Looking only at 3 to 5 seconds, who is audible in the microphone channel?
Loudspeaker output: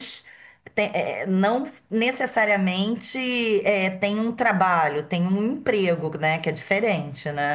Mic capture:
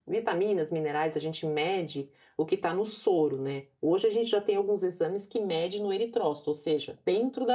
user only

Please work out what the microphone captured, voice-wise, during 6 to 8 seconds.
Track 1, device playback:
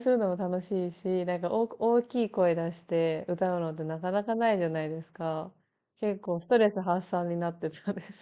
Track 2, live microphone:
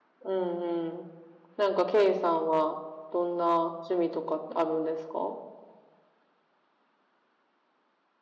neither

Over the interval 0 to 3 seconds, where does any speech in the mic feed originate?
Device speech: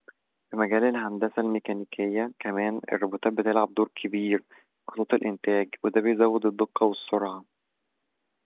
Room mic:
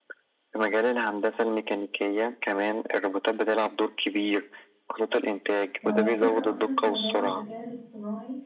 echo only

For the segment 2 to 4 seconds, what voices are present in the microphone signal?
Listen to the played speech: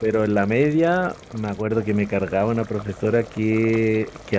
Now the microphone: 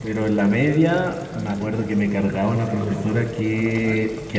both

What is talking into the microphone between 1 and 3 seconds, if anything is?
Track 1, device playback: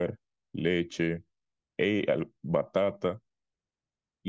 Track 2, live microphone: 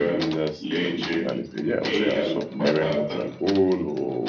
both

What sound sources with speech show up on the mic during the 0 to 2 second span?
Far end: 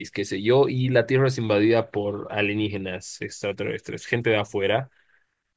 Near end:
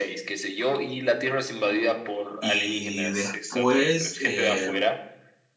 echo only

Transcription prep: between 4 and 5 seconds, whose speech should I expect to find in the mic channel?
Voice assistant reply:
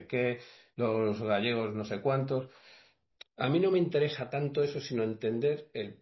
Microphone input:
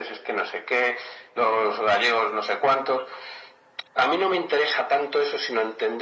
echo only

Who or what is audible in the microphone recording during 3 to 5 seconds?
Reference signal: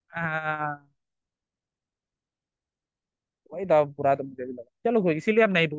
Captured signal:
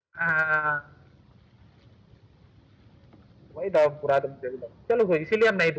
echo only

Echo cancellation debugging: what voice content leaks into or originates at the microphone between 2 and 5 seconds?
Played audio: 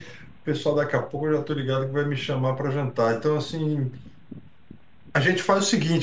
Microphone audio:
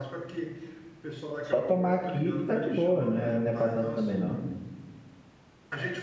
both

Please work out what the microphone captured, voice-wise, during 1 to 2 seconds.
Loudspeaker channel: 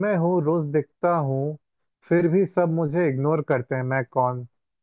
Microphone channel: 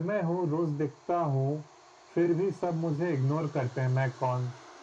echo only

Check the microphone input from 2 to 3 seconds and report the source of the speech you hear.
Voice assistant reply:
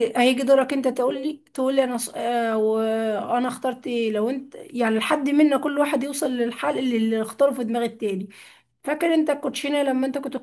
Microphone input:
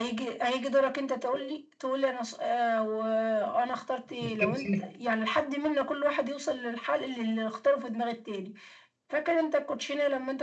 echo only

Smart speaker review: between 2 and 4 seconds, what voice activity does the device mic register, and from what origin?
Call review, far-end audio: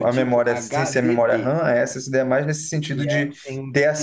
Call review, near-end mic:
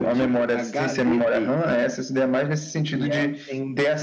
echo only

